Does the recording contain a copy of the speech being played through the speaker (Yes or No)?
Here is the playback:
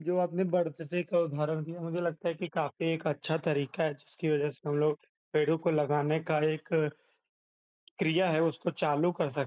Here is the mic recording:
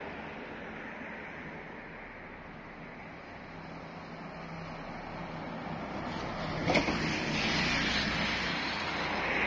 No